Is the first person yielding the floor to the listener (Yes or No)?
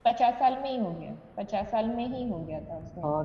Yes